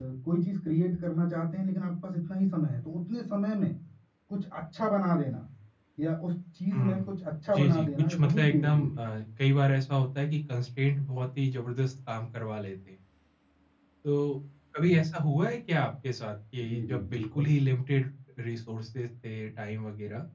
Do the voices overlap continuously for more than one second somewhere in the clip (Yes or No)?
Yes